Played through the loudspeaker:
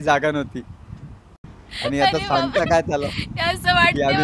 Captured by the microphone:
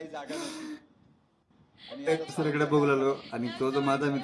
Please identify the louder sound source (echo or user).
user